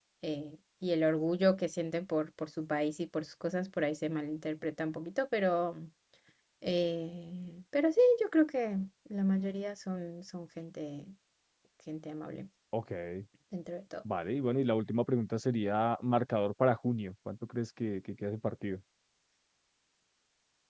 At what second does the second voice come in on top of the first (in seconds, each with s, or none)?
none